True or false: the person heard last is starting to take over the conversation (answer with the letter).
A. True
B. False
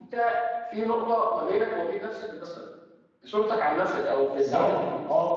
A